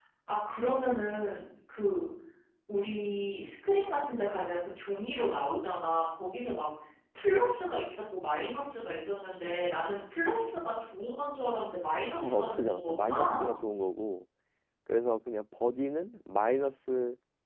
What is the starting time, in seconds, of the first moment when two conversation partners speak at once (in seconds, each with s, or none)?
12.2 s